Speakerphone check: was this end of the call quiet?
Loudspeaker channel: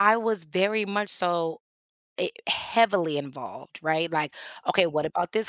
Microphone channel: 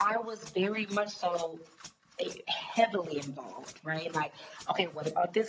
Yes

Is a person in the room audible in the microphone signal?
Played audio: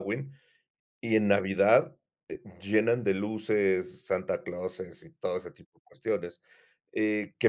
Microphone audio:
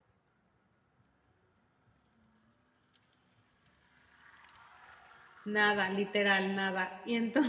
Yes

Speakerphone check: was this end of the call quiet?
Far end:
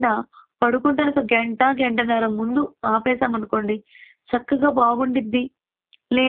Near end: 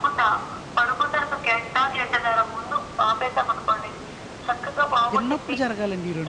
No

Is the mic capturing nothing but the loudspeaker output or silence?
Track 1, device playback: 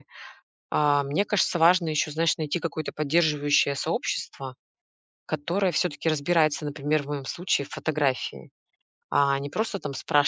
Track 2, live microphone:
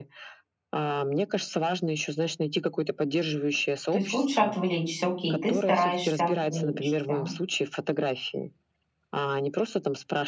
No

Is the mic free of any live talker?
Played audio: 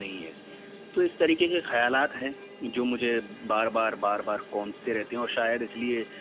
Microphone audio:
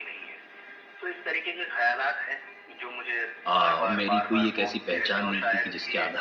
No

